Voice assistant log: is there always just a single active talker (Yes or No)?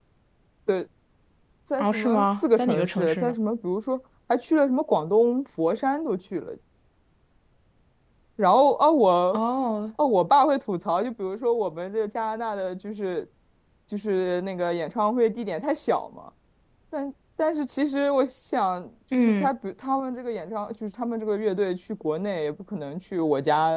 No